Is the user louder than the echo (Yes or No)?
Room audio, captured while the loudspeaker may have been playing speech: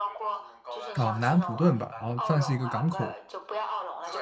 Yes